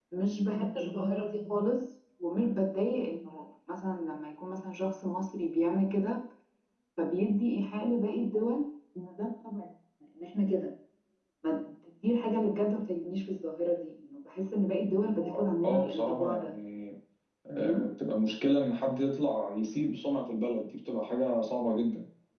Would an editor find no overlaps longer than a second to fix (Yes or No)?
No